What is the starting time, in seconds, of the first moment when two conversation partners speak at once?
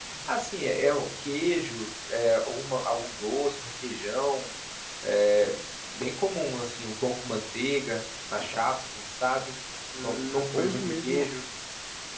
10.0 s

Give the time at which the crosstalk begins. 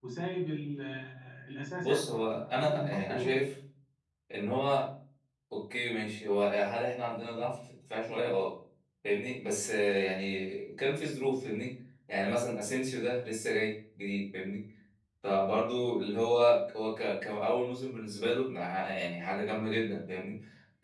1.8 s

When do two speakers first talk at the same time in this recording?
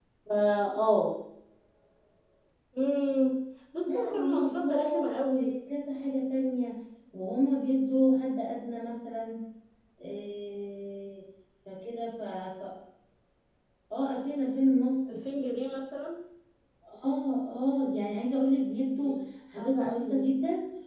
3.9 s

